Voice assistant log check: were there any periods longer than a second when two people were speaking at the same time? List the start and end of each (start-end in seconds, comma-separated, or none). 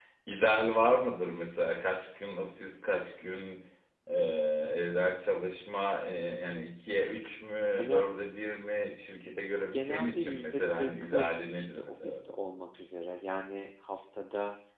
9.7-12.2